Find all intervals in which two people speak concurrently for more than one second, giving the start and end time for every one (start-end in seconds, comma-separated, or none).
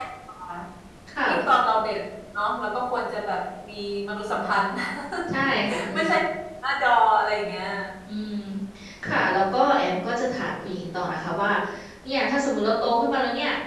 none